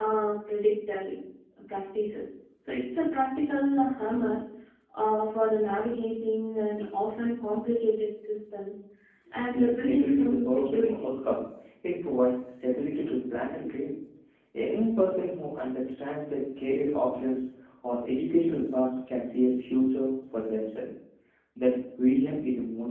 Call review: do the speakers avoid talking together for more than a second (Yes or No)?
No